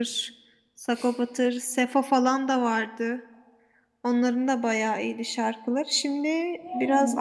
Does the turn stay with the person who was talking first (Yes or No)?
Yes